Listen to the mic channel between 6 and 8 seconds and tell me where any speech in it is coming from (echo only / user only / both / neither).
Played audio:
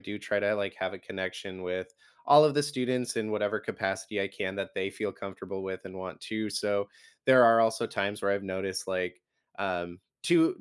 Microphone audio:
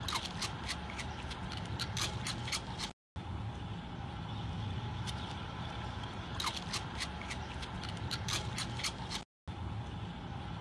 neither